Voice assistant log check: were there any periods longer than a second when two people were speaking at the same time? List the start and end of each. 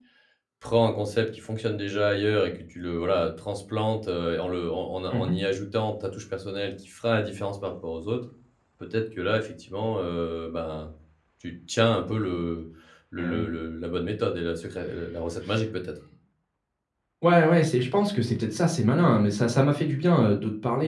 none

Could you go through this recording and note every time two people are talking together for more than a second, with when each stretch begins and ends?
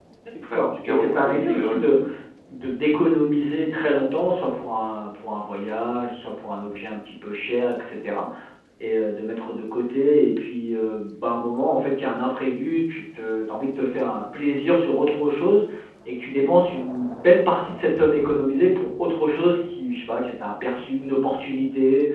0.5-2.0

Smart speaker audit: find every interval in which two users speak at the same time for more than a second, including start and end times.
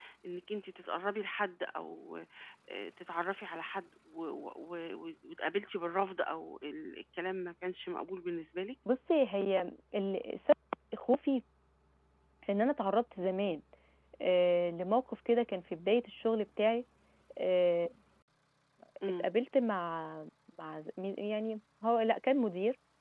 none

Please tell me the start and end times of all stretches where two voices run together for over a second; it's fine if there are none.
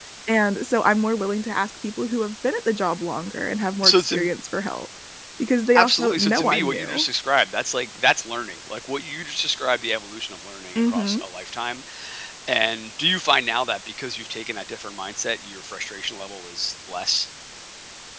5.8-7.0

